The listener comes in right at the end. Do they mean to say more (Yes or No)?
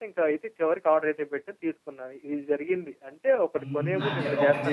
Yes